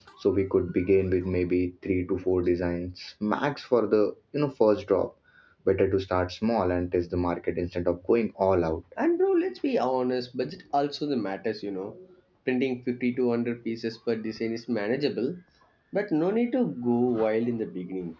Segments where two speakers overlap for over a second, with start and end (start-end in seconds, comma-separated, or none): none